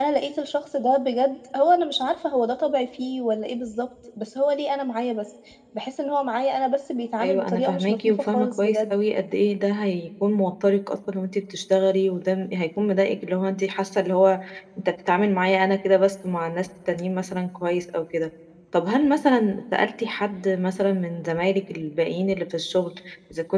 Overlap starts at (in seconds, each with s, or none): 7.2 s